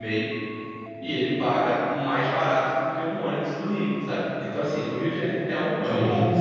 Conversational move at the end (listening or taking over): taking over